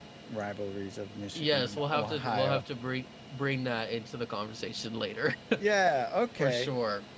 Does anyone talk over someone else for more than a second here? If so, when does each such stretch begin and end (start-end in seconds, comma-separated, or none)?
1.4-2.6